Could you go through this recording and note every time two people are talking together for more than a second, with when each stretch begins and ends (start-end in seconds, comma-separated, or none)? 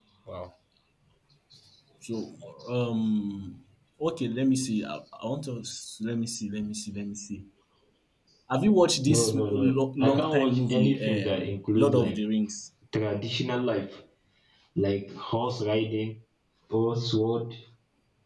9.1-12.2